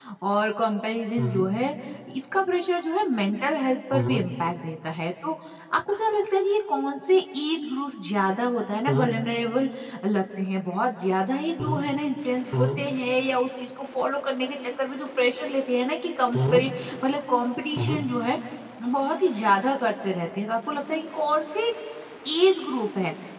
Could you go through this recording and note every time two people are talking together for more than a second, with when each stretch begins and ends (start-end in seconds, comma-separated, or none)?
none